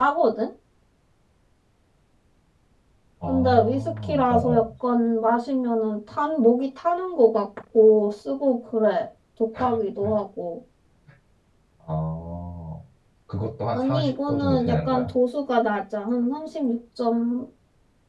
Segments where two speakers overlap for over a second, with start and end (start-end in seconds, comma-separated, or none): 3.3-4.6, 13.7-15.1